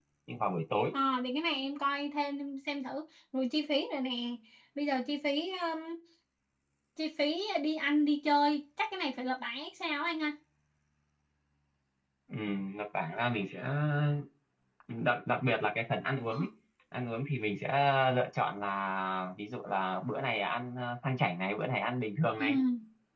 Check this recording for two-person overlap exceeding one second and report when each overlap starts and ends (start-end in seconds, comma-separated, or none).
none